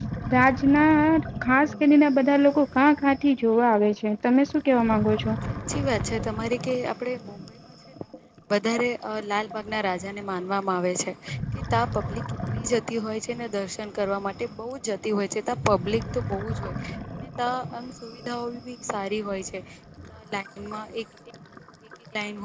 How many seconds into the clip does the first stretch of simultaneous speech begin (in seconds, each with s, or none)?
none